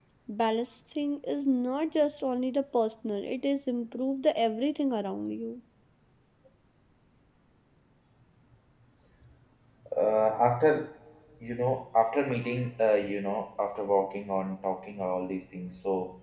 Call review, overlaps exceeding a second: none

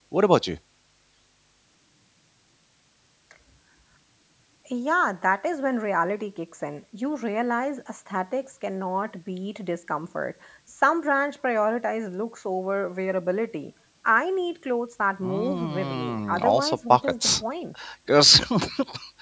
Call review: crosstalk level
present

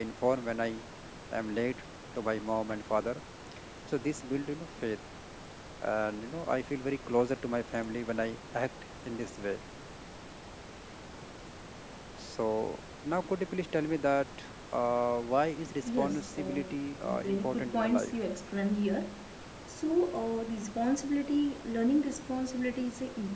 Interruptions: present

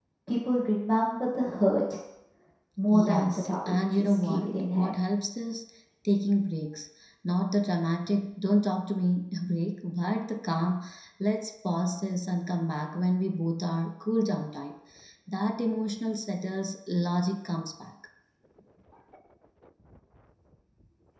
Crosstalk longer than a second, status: present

